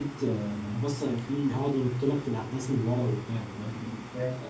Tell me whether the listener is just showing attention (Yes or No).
Yes